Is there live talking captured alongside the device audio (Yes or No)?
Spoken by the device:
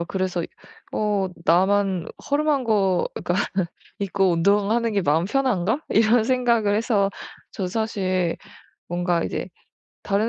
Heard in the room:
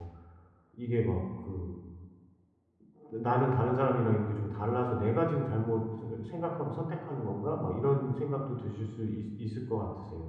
Yes